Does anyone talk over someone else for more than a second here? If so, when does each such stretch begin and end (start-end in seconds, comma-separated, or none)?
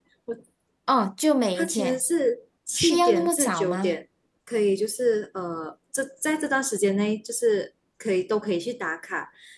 2.8-4.0